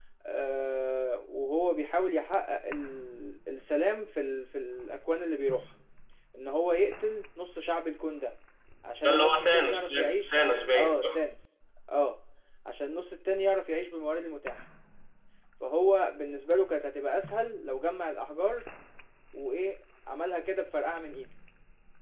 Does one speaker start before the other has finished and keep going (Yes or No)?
Yes